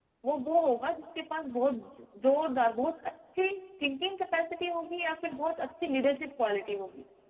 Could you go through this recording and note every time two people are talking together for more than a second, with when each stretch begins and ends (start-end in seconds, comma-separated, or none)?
none